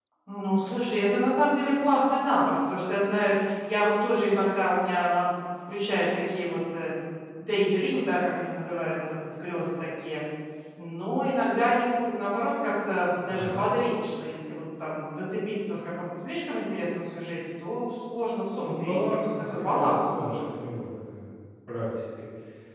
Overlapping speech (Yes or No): Yes